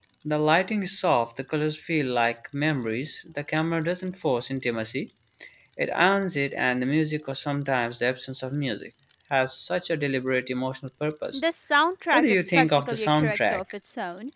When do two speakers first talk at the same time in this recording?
12.1 s

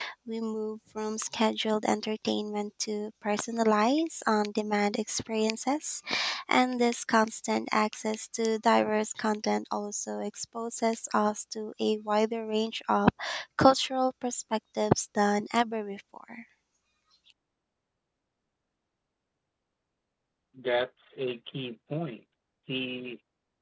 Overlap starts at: none

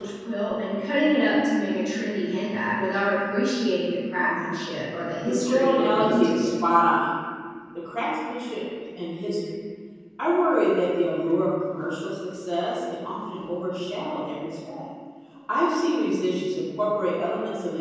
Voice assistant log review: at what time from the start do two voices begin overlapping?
5.2 s

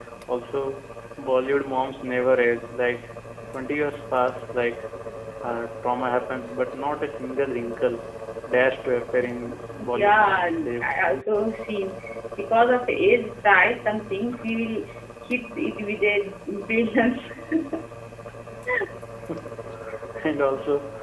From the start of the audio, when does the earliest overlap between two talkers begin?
9.8 s

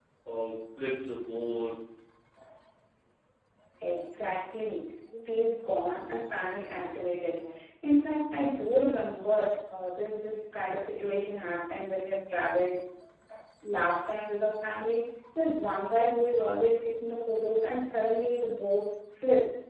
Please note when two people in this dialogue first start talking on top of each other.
none

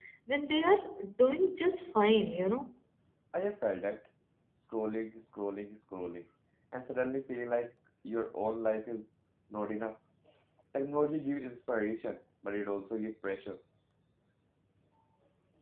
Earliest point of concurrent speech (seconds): none

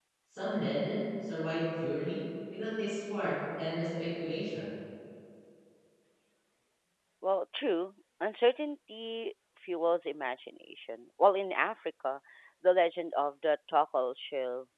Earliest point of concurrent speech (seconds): none

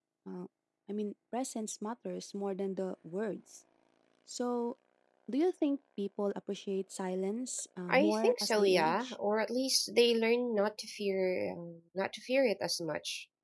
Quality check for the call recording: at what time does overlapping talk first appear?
7.9 s

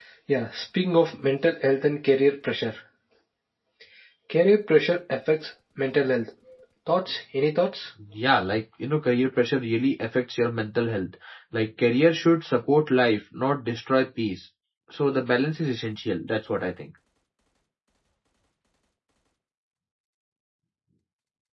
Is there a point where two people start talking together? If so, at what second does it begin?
none

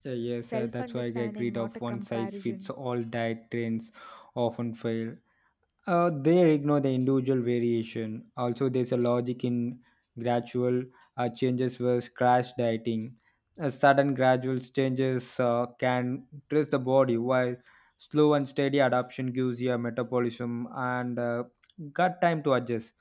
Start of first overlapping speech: 0.5 s

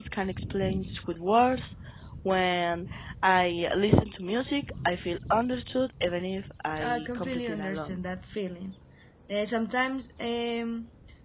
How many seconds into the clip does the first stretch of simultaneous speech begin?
6.8 s

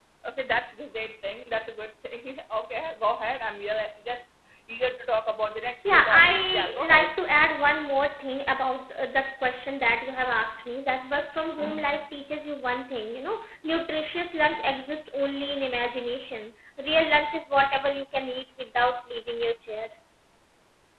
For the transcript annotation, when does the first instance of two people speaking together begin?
5.6 s

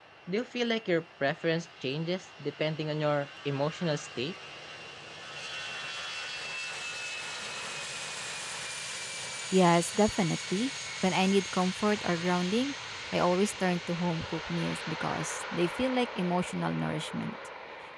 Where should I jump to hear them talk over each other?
none

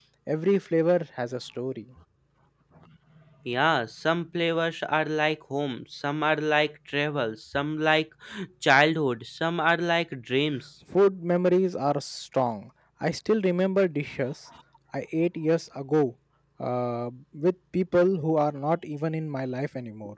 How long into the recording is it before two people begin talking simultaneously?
none

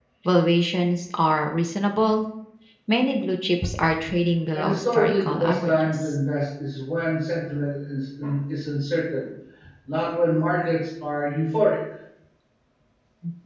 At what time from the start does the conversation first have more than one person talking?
4.5 s

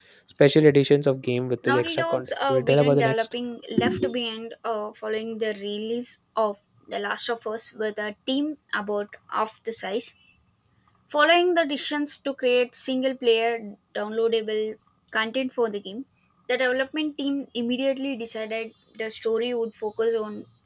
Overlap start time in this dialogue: 1.6 s

